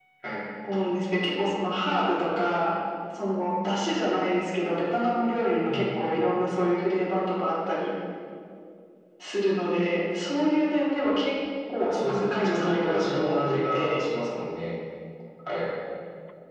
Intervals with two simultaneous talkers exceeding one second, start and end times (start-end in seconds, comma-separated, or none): 11.8-14.0